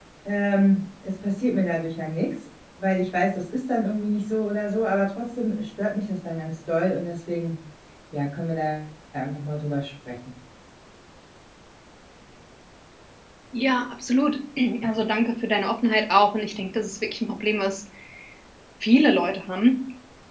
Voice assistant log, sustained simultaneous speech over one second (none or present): none